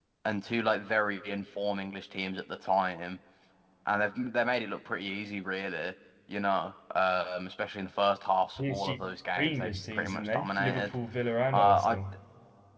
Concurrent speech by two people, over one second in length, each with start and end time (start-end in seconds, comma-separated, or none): 8.6-11.0